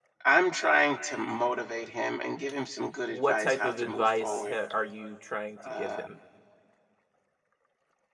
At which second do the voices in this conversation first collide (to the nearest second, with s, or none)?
3 s